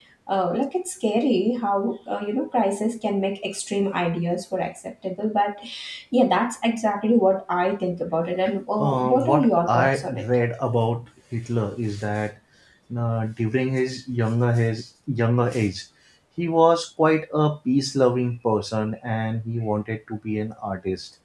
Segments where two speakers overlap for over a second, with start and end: 8.8-10.3

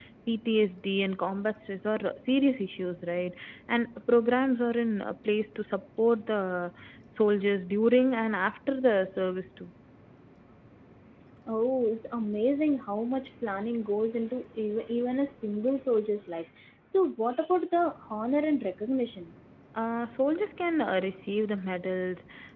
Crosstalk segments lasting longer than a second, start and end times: none

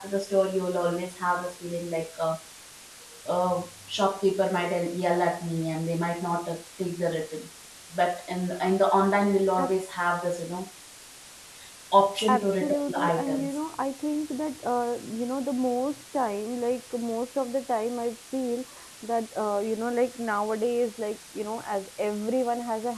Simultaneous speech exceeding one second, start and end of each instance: 12.3-13.5

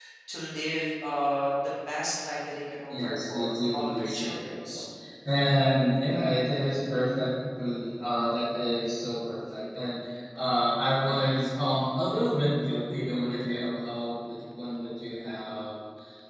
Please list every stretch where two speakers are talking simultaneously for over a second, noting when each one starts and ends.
2.9-4.8

